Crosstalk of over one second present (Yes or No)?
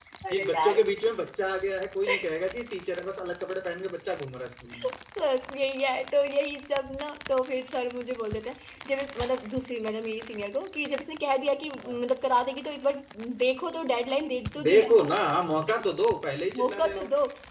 No